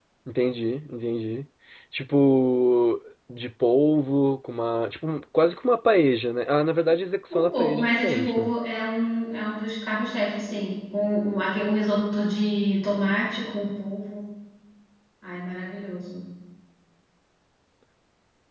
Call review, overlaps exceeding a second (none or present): present